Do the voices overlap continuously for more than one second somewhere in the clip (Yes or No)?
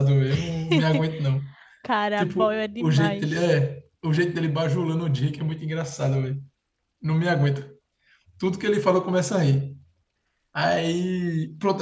Yes